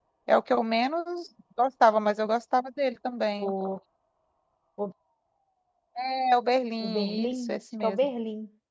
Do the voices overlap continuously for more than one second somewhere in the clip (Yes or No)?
Yes